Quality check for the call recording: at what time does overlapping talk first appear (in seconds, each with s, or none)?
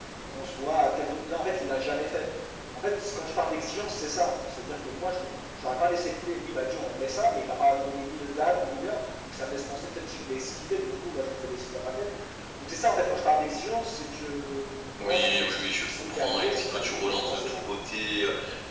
14.9 s